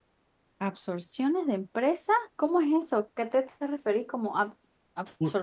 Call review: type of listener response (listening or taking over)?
taking over